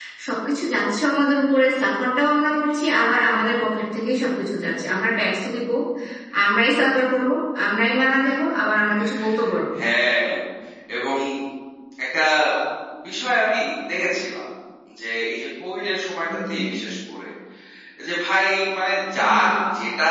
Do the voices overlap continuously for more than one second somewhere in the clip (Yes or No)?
No